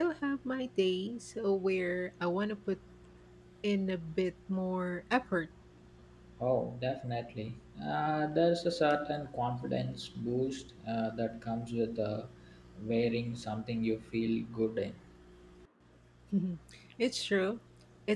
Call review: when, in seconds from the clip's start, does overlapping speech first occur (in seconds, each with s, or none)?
none